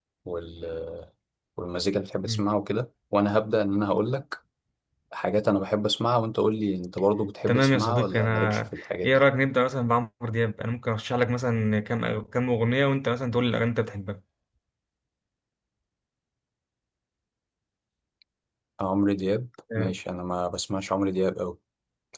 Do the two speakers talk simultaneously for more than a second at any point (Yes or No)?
Yes